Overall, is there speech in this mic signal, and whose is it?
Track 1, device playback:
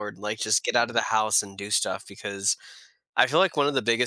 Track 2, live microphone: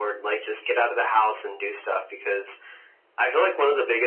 echo only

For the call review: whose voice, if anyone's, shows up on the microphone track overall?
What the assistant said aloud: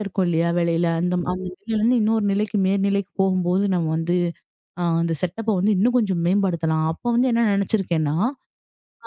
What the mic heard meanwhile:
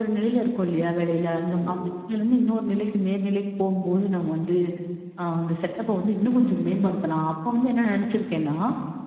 echo only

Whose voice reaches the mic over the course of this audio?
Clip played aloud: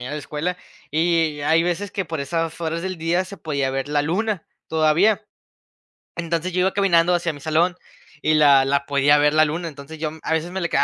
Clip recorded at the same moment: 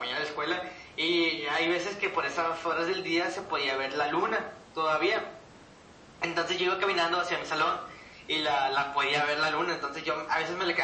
echo only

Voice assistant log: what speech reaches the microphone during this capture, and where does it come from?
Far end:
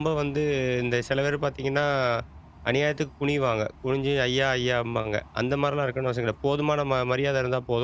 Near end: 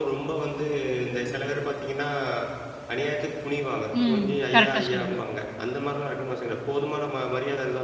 both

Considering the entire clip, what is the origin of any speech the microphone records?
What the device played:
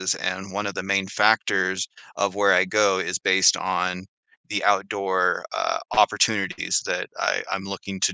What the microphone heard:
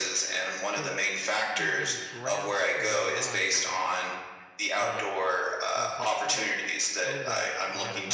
both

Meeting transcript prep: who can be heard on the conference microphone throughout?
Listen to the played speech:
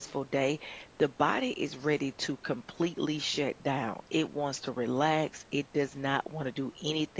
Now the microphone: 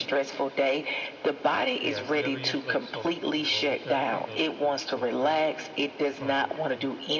both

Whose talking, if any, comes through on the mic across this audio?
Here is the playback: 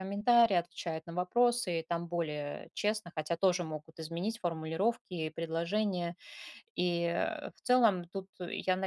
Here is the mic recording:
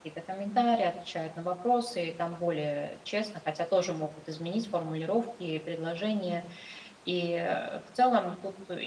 echo only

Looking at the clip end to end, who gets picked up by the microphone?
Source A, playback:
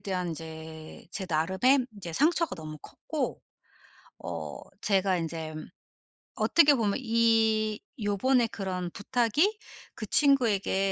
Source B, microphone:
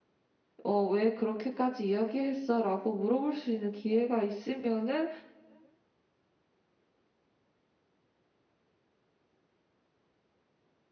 user only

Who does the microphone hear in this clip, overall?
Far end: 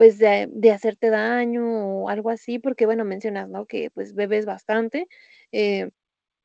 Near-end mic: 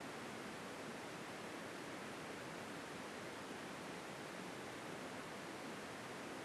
neither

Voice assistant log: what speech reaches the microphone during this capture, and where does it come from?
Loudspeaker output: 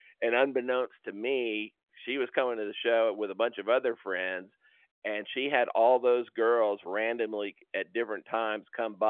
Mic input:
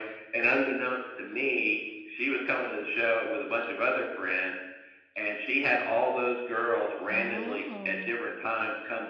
both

